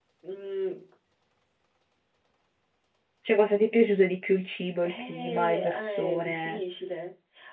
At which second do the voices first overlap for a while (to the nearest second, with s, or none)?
5 s